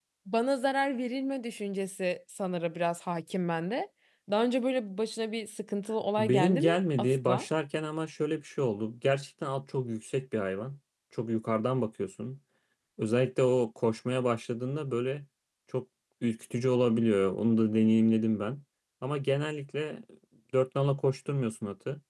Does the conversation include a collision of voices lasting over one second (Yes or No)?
Yes